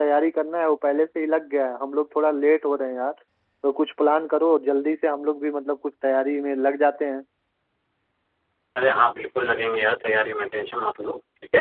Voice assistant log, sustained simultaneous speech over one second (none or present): none